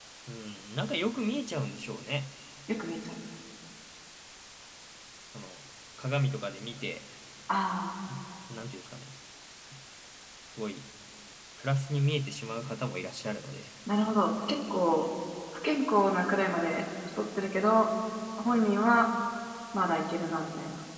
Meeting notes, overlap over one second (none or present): none